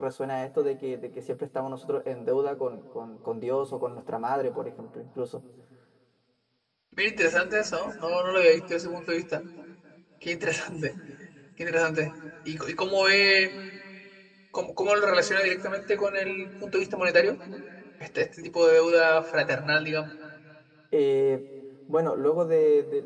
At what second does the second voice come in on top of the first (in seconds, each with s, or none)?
none